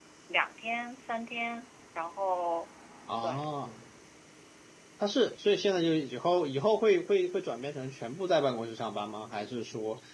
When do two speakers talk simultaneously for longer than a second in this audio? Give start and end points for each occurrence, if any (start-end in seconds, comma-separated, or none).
none